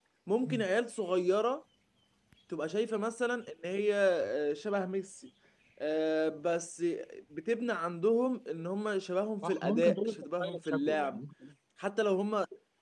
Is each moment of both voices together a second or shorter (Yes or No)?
No